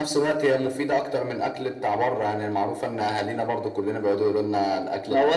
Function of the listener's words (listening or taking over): taking over